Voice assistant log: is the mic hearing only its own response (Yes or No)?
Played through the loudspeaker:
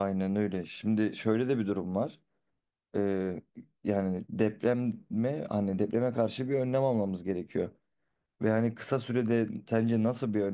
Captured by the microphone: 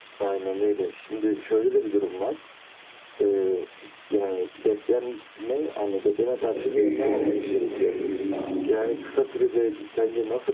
No